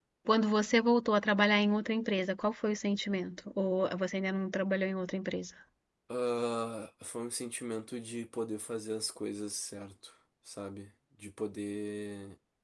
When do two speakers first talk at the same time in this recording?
none

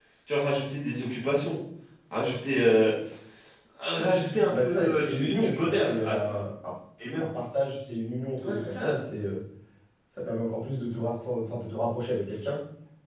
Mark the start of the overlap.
4.5 s

